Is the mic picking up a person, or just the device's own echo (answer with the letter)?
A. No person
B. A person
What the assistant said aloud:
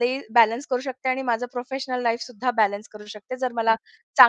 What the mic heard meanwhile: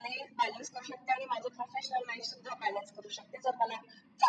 A